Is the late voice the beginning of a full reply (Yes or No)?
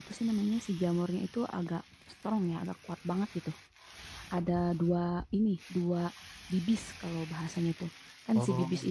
No